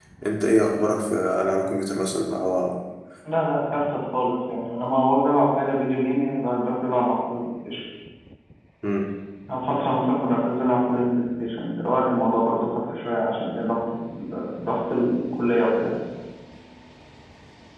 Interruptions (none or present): none